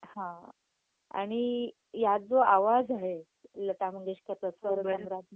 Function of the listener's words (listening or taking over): listening